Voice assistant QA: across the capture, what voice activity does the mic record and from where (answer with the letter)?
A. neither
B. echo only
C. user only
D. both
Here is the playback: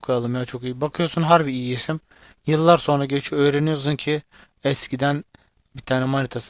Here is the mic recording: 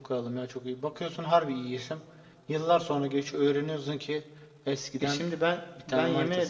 D